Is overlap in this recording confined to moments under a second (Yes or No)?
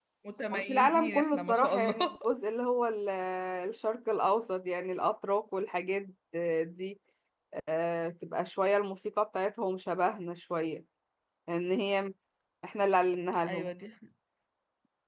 No